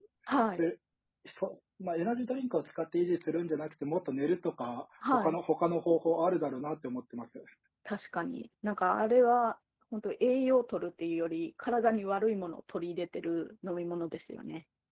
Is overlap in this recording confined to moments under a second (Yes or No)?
Yes